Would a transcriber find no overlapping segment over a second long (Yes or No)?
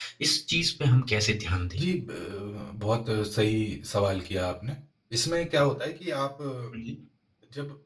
Yes